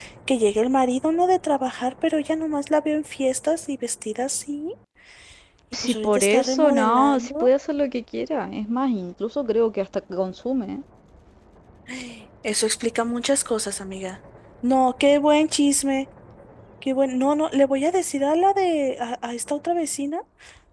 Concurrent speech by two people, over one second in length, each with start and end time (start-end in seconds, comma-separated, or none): 5.8-7.5